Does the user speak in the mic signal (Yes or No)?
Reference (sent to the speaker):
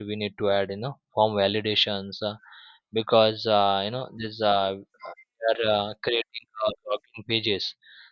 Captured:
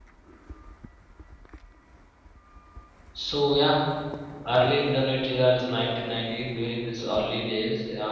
Yes